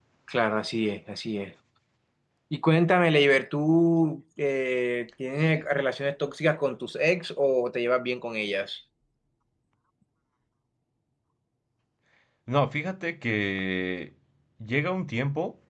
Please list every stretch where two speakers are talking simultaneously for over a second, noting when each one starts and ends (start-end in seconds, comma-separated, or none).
none